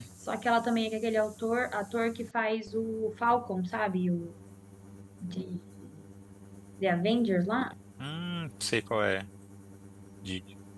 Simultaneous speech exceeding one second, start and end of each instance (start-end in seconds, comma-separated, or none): none